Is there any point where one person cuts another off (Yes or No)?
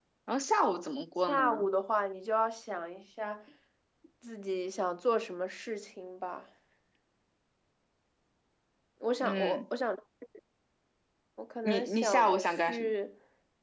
Yes